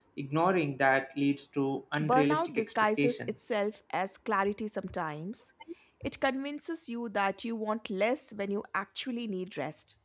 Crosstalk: present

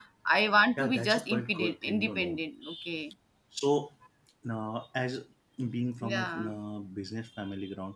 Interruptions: present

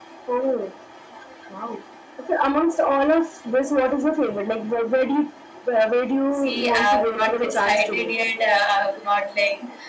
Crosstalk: present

